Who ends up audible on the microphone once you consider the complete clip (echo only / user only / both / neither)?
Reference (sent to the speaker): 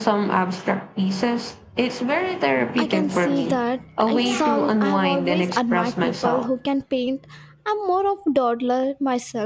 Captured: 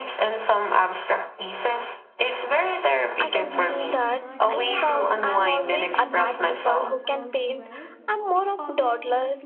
both